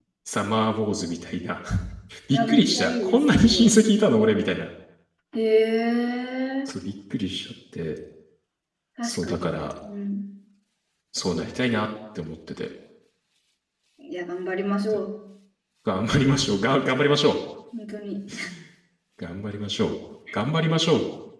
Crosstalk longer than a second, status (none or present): present